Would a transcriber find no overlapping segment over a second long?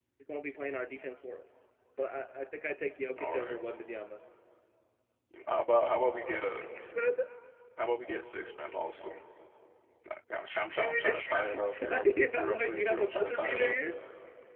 No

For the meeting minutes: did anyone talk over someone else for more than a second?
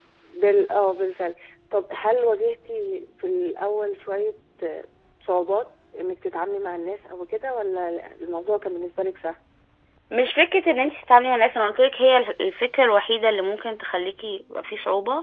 No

